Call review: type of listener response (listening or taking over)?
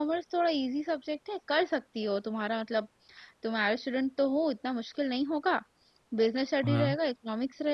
listening